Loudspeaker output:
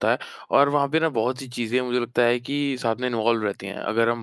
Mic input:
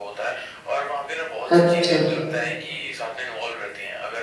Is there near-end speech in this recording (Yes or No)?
Yes